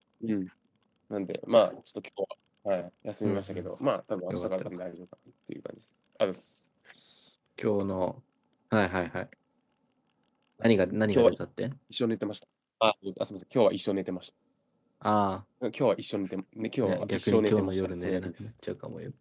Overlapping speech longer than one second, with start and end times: 16.8-18.3

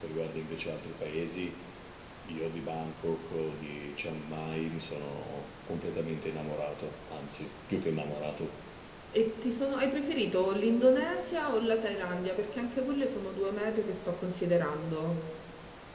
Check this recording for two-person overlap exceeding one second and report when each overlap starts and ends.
none

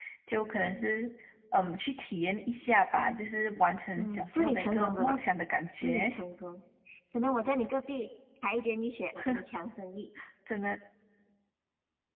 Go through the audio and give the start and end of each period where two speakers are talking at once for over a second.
4.0-5.2

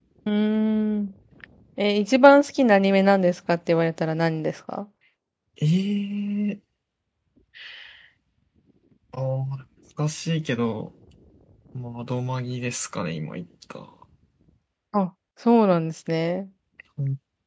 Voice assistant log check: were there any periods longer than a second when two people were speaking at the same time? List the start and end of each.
none

